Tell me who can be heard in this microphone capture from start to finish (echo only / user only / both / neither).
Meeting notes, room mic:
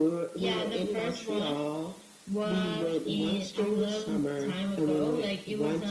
echo only